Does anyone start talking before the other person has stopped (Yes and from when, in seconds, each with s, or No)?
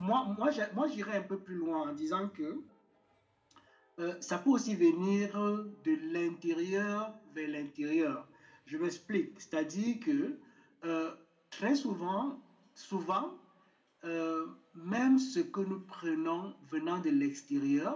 No